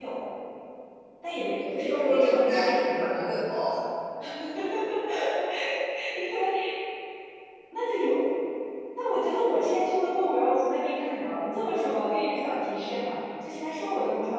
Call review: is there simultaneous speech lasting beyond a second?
Yes, from 1.9 s

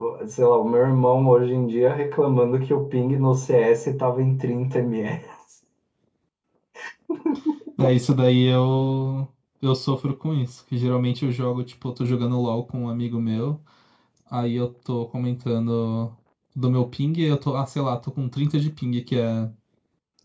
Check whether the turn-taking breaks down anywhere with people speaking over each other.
No

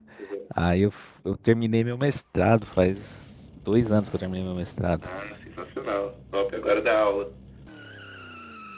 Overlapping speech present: No

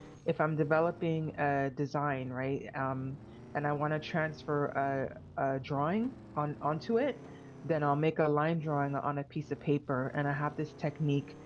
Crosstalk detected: No

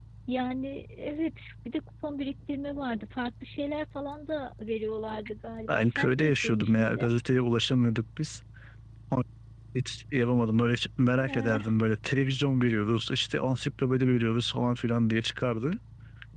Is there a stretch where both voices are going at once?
Yes, from 5.7 s

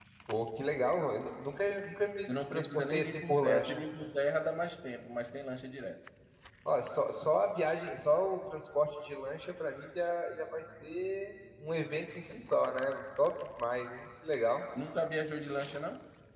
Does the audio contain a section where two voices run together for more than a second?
Yes, from 2.3 s

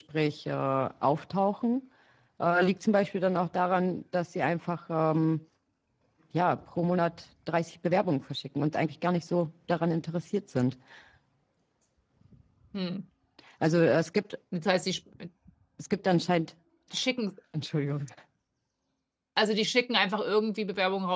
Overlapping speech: No

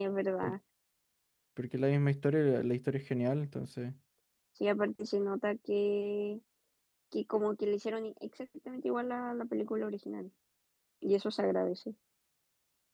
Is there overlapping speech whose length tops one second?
No

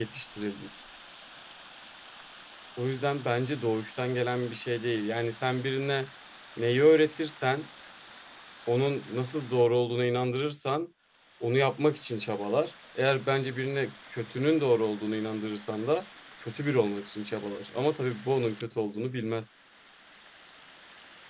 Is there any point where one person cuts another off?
No

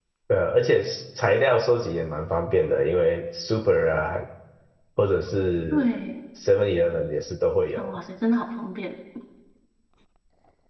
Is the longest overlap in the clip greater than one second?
No

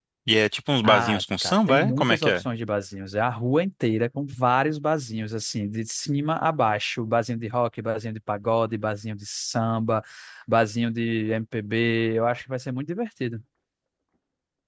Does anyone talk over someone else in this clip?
Yes, from 0.9 s

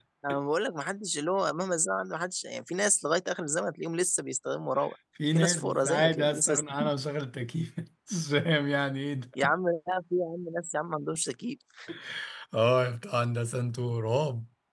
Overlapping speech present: Yes, from 5.2 s

